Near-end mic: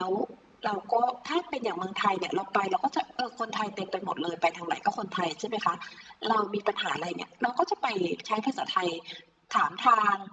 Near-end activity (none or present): none